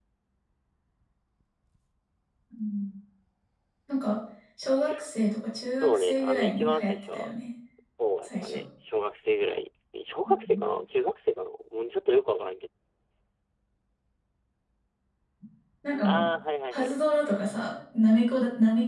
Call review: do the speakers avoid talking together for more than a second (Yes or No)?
No